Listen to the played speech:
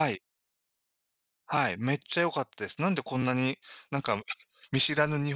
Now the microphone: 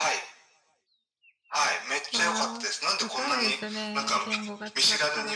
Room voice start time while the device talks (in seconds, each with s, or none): 2.1 s